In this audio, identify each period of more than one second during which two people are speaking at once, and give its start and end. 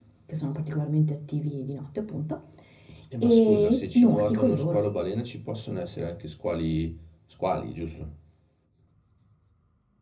3.2-4.8

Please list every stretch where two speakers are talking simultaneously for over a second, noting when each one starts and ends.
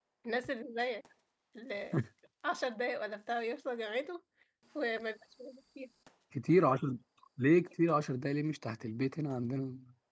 none

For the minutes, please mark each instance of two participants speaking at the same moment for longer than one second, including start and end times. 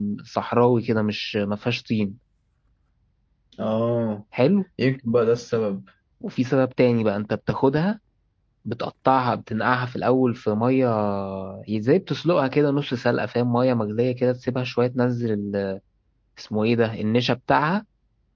none

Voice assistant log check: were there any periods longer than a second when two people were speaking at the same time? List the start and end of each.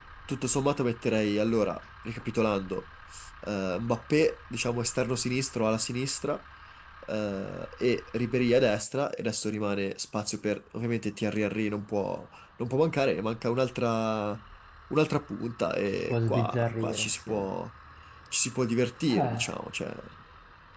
16.1-17.3

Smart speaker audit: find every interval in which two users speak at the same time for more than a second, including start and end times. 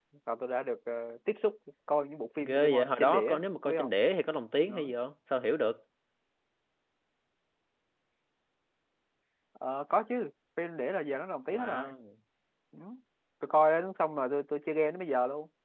2.4-3.9

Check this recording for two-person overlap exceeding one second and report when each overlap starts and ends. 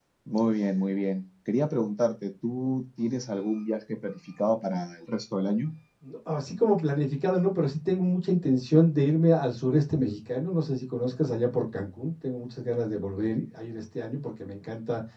none

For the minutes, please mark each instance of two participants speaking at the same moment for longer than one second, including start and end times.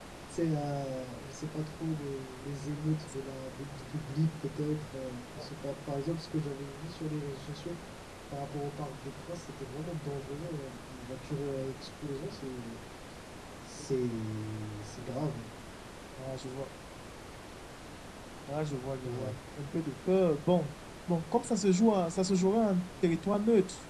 none

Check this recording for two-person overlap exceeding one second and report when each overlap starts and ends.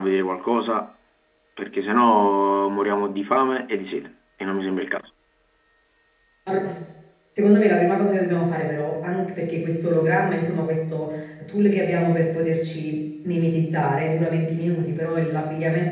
none

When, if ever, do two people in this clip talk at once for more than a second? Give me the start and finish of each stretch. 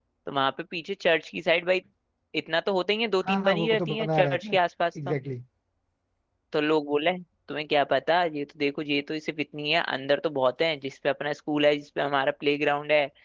3.3-4.6

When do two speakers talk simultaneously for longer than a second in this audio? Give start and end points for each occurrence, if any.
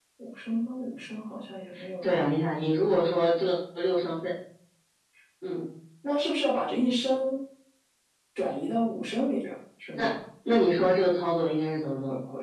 none

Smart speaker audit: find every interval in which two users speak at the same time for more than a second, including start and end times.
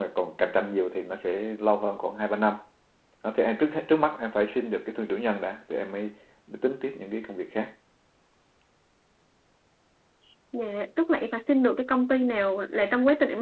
none

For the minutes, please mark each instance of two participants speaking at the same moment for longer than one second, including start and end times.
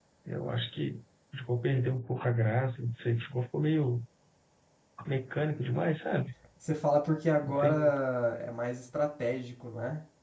none

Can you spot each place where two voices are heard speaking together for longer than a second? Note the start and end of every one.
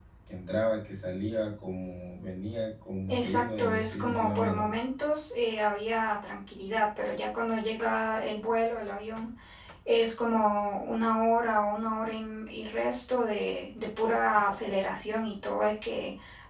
3.1-4.7

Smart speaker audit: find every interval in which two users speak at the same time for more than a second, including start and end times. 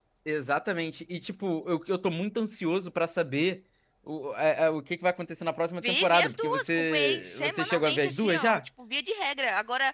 5.8-8.7

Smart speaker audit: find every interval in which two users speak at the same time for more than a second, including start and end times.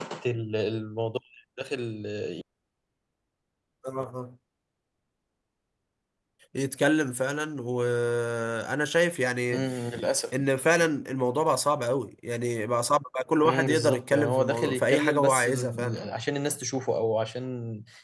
13.4-16.0

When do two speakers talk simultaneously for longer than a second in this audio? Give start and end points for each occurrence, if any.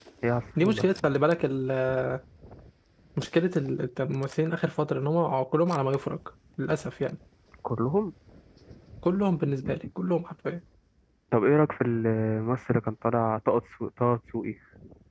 none

